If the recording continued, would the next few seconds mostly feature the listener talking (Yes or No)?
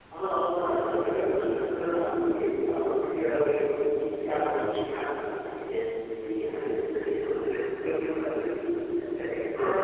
No